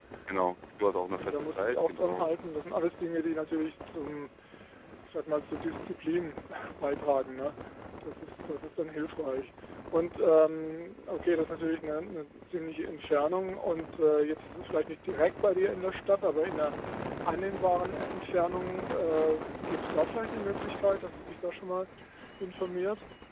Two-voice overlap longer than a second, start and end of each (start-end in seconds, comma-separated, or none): 1.2-2.4